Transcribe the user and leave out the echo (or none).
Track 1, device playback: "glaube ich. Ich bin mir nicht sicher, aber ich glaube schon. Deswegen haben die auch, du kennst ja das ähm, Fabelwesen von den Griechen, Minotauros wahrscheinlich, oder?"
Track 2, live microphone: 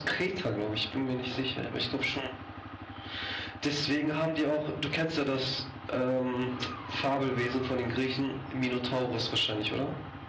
none